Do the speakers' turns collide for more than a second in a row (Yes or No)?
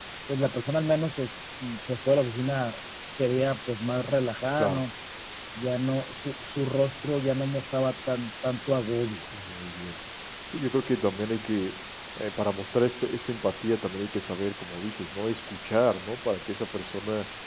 No